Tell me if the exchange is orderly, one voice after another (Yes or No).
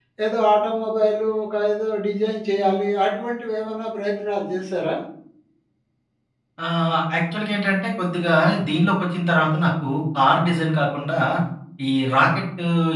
Yes